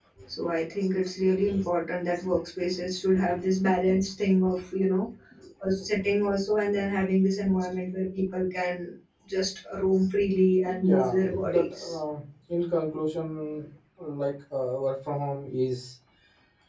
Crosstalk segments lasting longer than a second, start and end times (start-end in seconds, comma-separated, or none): 10.6-12.0